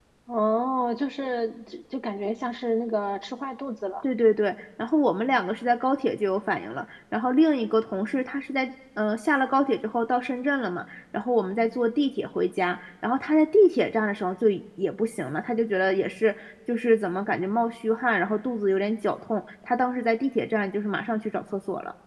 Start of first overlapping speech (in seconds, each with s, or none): none